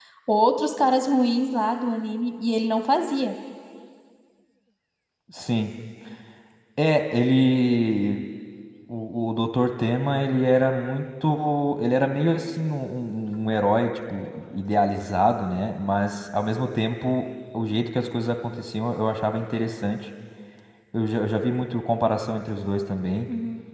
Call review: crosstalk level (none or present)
none